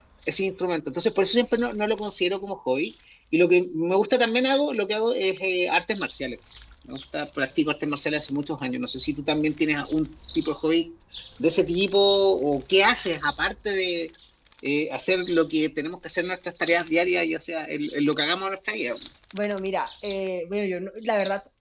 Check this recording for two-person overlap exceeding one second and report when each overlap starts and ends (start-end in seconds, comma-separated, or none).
none